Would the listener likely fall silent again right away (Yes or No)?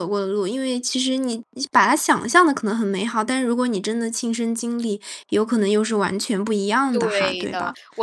No